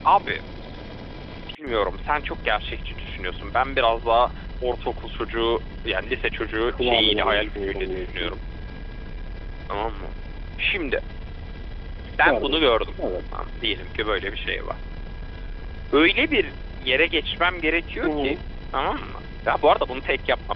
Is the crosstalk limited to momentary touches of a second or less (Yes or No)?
No